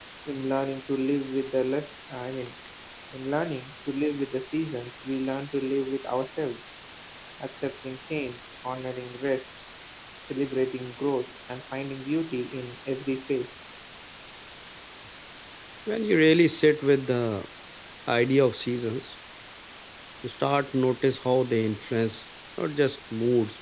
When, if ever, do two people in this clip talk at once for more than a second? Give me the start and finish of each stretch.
none

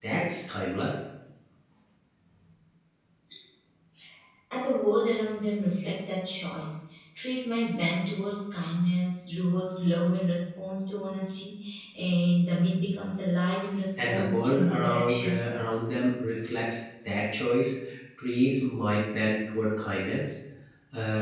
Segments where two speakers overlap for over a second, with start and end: 14.0-15.4

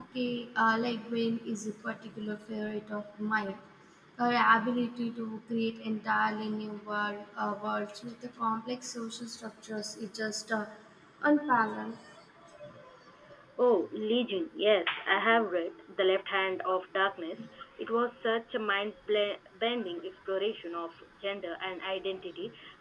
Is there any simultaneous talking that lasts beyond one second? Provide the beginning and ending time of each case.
none

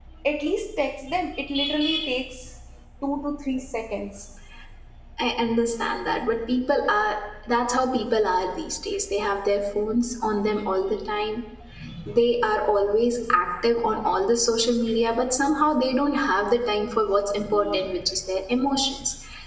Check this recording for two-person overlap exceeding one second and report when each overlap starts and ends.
none

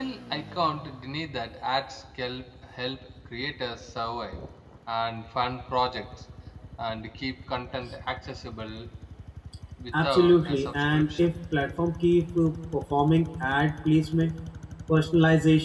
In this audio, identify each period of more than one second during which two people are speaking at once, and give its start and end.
10.0-11.3

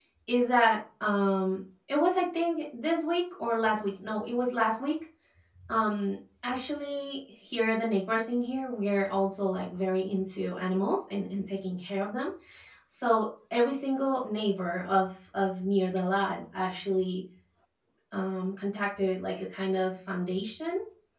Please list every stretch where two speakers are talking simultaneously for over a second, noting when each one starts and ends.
none

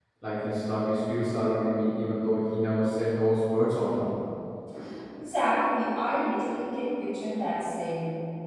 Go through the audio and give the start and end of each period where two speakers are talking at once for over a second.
none

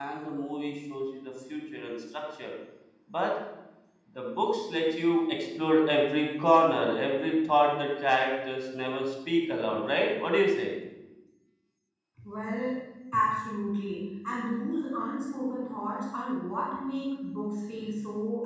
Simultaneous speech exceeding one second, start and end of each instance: none

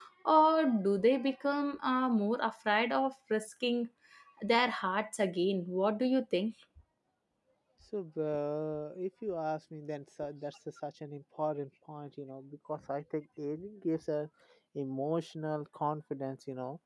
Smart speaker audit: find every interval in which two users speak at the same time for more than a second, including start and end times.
none

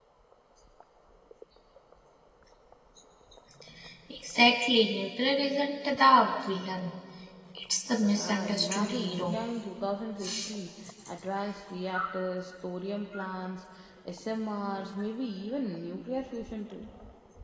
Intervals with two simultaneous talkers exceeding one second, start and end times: 8.0-9.4

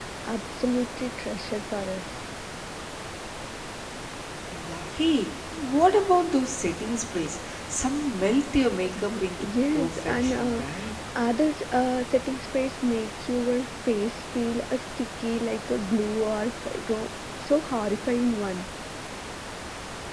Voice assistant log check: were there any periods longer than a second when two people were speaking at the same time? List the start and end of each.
9.0-10.6

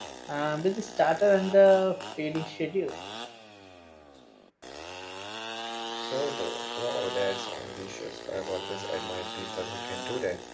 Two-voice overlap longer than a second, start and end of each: none

